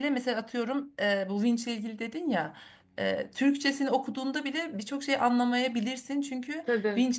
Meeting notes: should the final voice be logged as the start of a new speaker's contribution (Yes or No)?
No